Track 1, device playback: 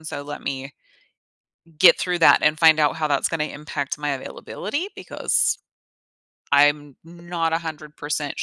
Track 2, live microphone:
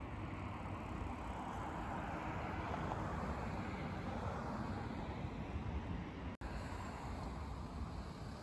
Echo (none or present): none